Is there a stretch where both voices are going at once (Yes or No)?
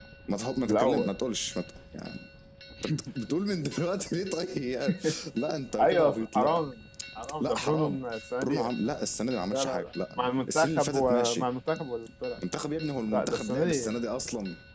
Yes